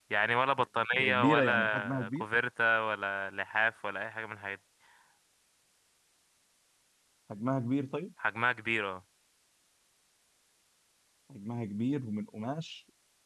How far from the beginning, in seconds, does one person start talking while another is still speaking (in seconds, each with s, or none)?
0.9 s